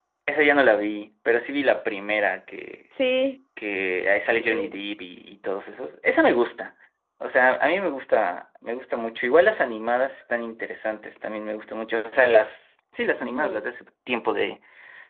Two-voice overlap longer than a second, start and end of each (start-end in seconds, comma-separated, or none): none